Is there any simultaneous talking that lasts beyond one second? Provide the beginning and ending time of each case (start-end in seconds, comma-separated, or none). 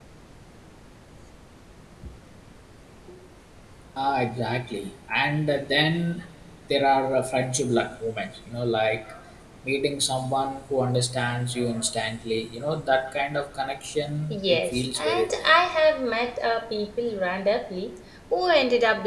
14.3-15.5